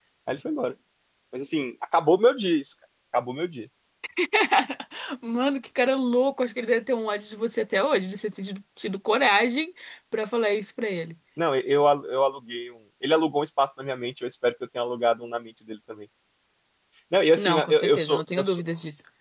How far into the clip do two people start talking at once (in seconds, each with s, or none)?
17.4 s